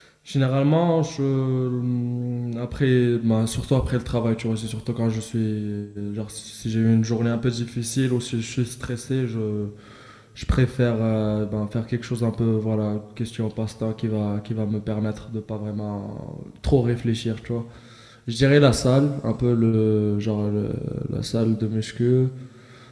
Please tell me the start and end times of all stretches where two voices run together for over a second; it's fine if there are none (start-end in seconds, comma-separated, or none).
none